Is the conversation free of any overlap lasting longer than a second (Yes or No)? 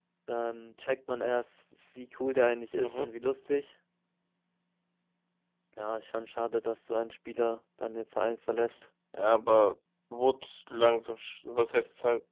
Yes